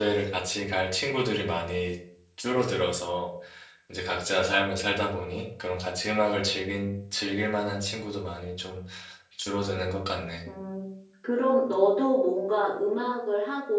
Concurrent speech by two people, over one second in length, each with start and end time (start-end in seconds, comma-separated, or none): none